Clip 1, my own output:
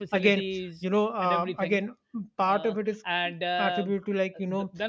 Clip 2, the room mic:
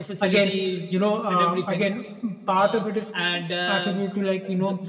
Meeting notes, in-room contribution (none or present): none